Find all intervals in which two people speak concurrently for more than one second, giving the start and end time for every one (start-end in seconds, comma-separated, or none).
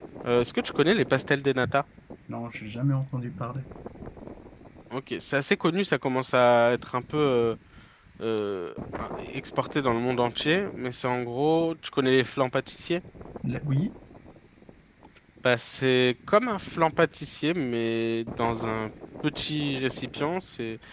none